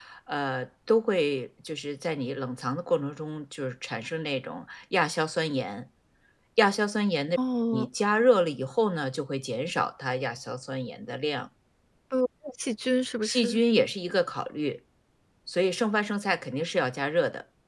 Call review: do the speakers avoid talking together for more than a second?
Yes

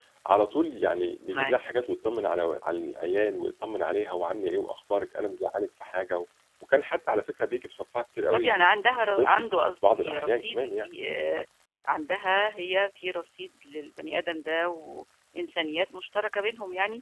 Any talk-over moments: Yes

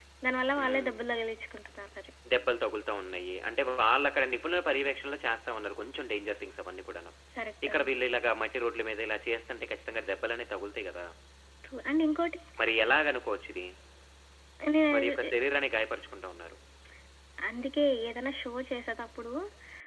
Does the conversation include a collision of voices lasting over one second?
No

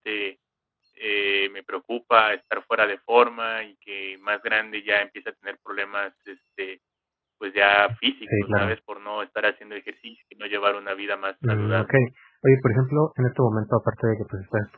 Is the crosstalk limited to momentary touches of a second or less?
Yes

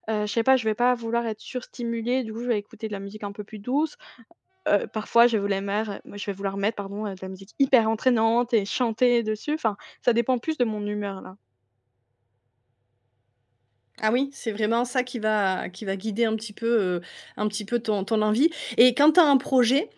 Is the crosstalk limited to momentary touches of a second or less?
Yes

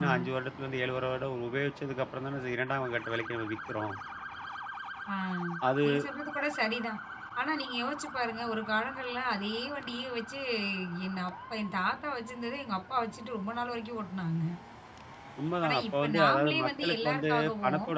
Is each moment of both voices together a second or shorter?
No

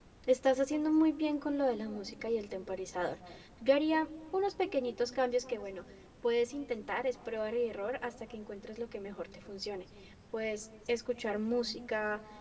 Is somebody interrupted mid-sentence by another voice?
No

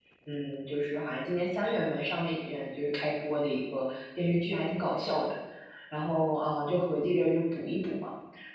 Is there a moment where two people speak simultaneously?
No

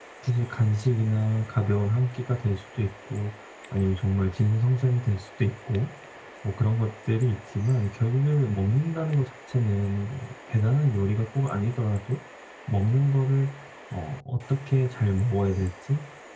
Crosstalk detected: No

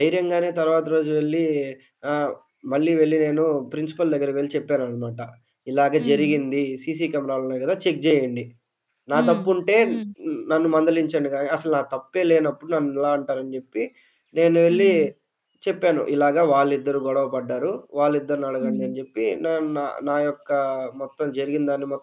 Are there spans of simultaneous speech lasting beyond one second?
No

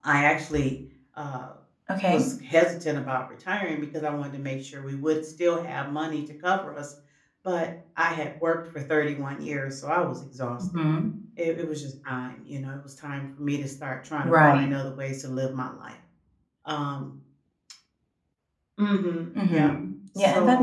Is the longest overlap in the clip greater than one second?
No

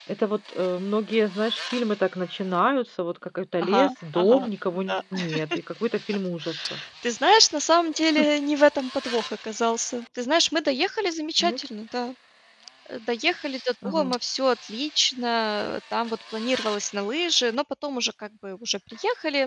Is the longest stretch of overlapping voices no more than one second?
No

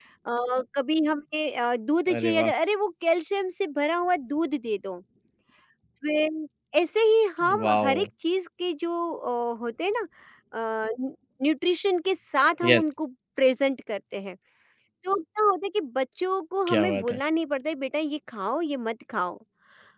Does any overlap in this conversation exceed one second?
No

